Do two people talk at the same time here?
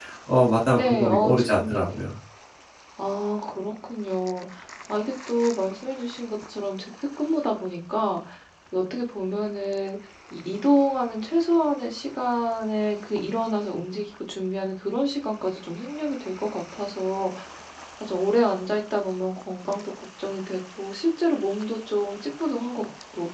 Yes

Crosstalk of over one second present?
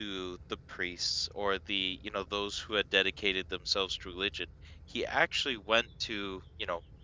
No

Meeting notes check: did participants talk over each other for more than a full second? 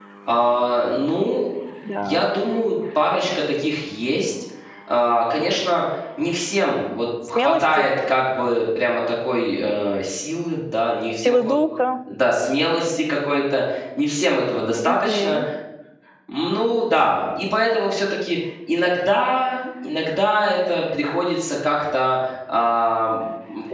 No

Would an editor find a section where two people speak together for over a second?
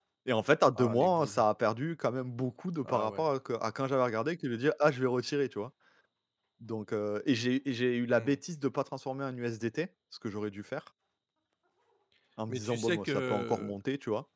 Yes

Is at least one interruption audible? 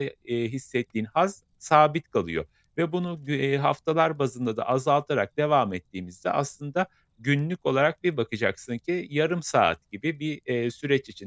No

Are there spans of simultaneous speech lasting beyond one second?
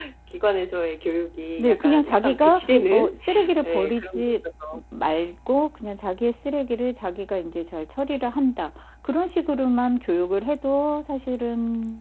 Yes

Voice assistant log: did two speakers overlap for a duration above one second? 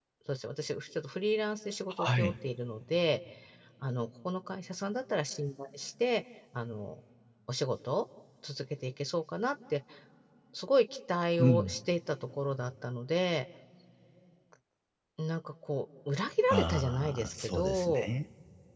Yes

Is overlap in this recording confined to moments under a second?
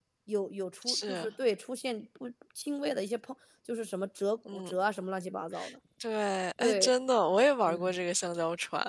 Yes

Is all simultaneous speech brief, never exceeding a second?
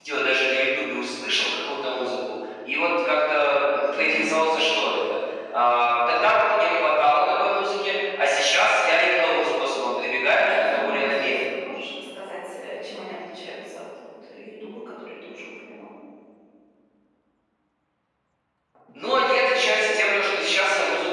No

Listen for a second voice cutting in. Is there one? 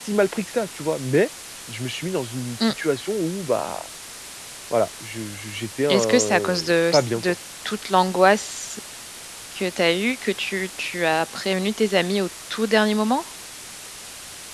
Yes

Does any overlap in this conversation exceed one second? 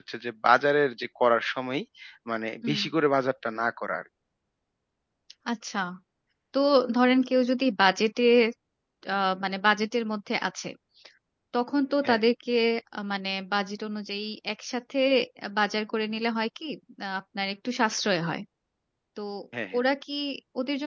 No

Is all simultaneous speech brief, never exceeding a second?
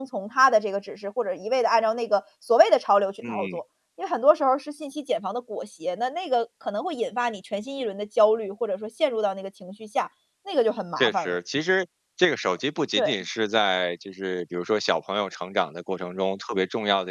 Yes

